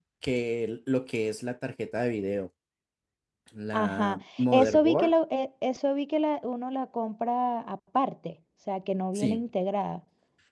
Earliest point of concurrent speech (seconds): 4 s

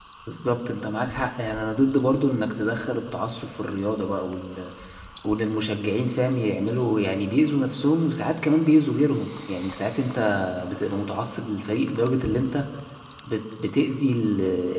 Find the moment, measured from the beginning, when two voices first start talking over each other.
none

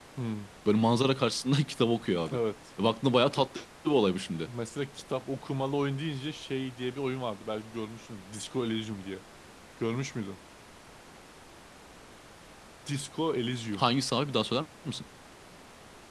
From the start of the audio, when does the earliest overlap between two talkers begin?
none

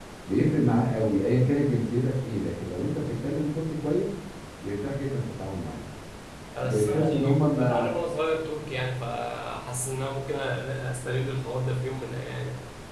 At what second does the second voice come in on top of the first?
7 s

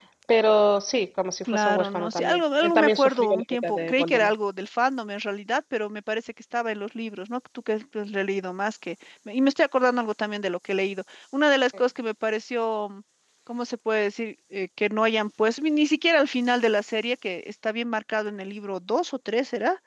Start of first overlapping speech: 1 s

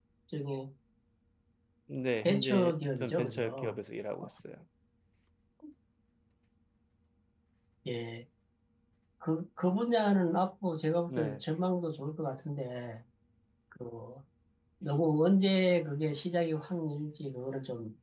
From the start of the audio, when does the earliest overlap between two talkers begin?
2 s

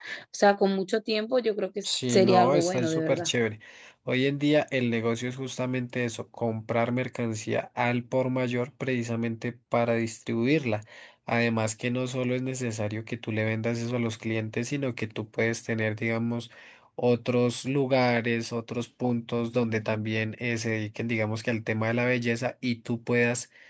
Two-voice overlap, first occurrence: 2 s

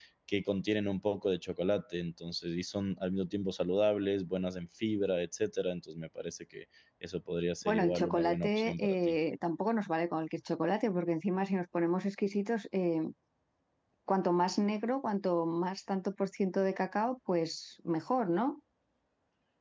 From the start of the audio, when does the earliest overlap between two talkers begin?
8 s

